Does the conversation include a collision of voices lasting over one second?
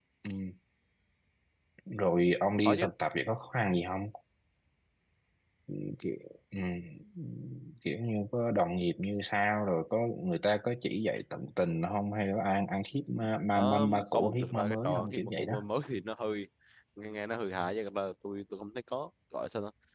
Yes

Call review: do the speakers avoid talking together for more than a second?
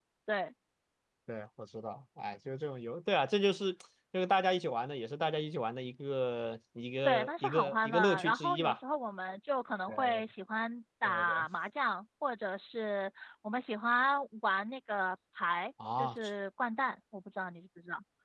No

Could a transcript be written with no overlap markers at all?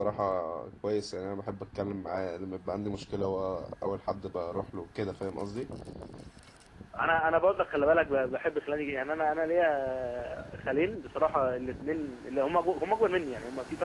Yes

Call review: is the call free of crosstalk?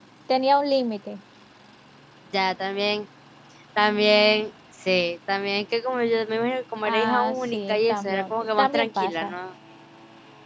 No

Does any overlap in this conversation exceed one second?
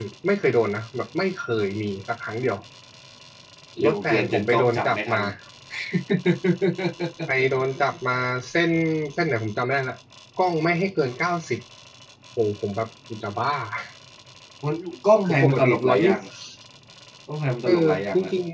Yes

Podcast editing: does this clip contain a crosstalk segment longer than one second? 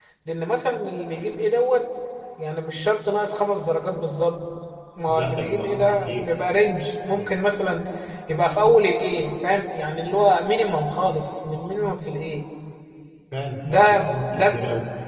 Yes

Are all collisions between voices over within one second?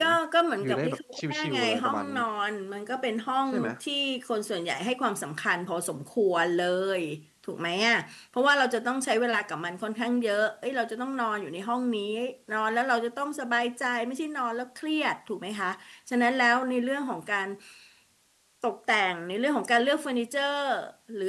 No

